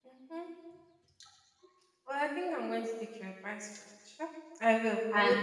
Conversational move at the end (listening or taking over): taking over